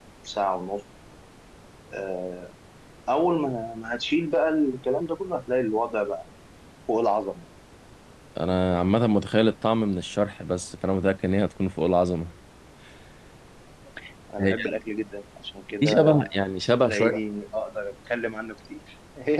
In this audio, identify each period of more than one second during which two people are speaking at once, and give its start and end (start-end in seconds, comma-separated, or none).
none